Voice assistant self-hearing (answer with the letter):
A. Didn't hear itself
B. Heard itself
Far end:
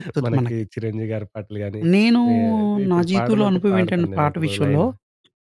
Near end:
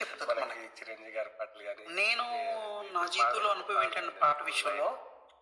B